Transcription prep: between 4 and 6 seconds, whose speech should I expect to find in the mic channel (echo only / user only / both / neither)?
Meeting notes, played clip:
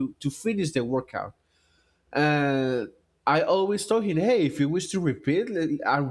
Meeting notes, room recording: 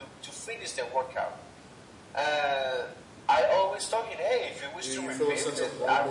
both